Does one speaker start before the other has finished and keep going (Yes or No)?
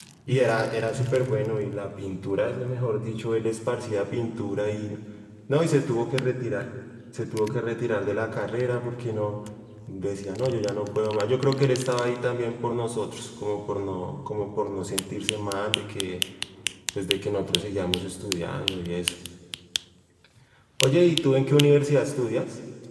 No